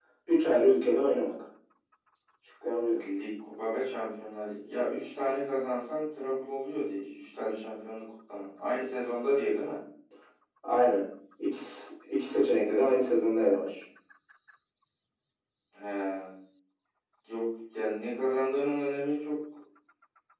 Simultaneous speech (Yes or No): No